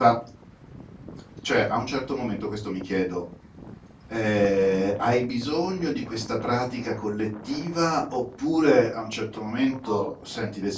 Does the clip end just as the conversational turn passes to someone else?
No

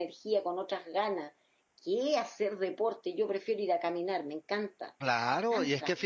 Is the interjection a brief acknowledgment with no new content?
No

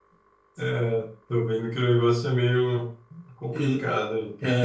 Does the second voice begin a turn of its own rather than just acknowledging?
Yes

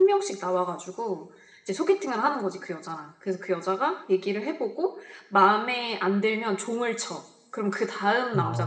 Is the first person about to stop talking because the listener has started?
Yes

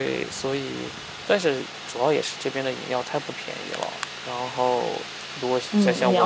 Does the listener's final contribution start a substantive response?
Yes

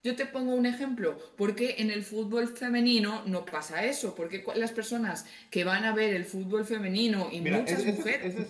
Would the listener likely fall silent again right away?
No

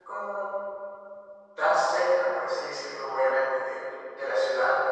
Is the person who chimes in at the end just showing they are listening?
Yes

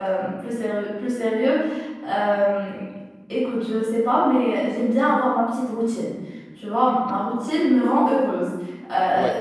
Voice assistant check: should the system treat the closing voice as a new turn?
No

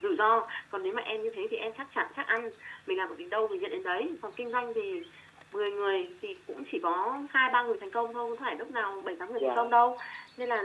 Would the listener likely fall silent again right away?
Yes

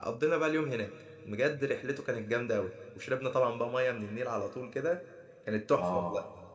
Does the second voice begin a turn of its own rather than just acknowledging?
Yes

